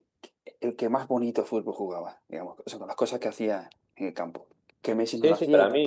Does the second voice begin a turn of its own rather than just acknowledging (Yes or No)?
Yes